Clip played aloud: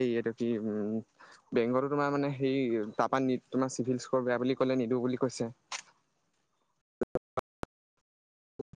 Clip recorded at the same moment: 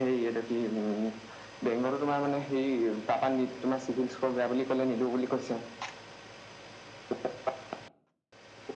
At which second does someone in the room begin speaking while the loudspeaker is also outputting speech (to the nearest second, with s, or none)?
none